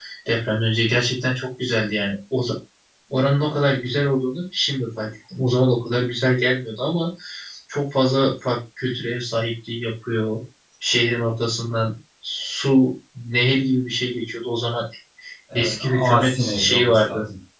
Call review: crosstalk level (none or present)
present